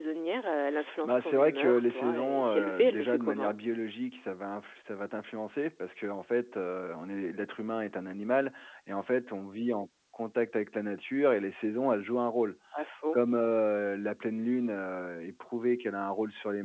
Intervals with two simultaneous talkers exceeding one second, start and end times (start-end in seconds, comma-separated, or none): 1.0-3.5